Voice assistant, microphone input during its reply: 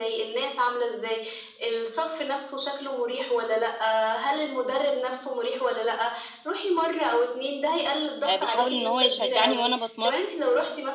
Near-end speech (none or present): present